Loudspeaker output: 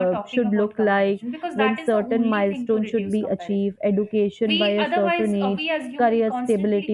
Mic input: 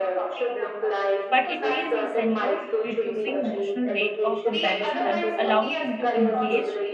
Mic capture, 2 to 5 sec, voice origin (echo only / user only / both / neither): both